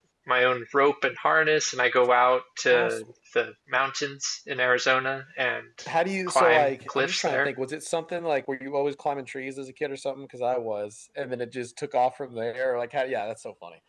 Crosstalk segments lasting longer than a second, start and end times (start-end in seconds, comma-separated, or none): 6.3-7.5